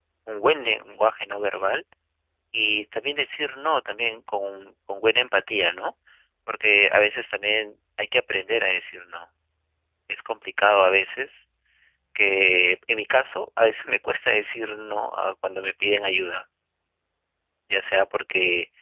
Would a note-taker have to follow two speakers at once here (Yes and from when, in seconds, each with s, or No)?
No